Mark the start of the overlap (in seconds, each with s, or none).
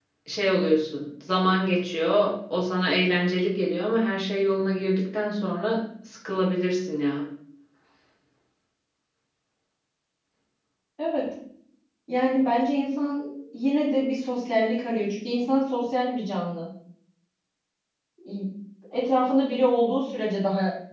none